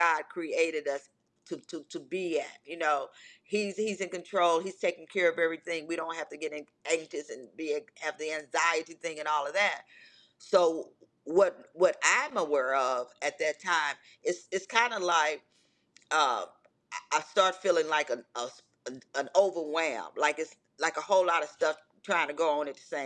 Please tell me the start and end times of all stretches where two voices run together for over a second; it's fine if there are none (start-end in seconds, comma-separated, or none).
none